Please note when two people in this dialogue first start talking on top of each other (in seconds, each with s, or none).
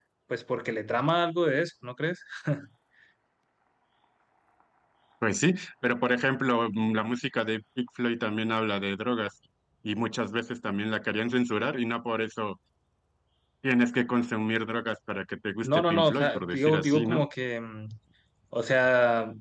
15.6 s